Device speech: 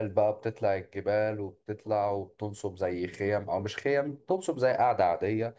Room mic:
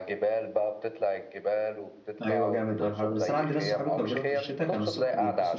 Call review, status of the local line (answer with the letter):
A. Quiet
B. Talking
B